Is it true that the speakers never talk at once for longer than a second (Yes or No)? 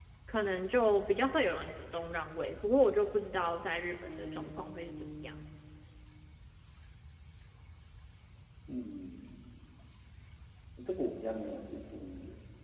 No